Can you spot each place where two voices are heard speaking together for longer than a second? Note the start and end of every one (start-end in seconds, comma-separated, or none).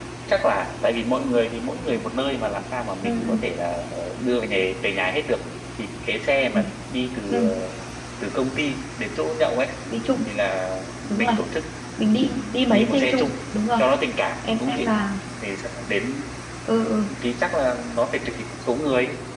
12.1-13.3